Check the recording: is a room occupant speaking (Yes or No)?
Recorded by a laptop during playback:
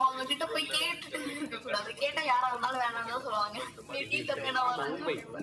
Yes